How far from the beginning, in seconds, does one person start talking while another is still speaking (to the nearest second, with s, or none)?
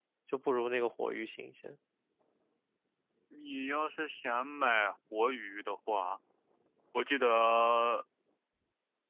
none